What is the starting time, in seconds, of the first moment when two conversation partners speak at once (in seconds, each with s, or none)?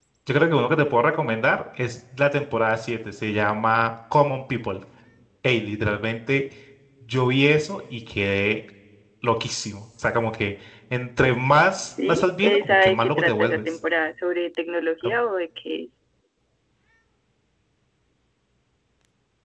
11.9 s